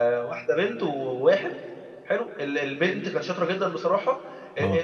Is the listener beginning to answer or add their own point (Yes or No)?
No